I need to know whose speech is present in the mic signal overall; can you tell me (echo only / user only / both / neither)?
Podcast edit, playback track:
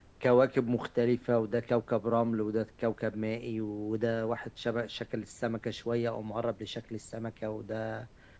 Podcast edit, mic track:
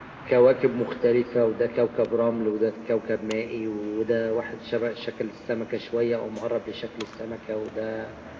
echo only